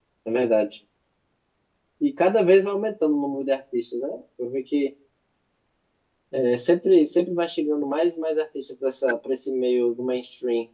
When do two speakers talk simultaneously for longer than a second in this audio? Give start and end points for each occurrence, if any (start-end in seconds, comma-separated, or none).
none